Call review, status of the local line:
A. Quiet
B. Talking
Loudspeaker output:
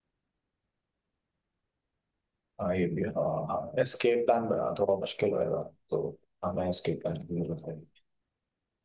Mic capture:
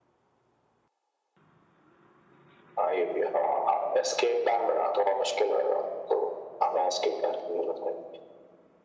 A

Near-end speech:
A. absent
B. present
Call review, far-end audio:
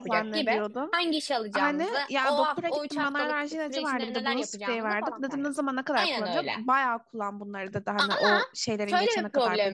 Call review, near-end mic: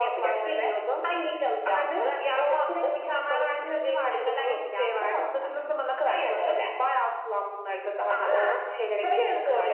A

